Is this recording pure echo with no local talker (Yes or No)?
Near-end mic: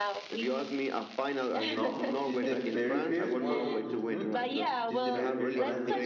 No